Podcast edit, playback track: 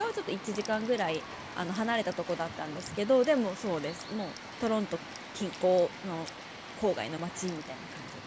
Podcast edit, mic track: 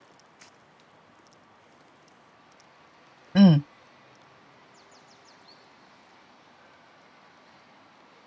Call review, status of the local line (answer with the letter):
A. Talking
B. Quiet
A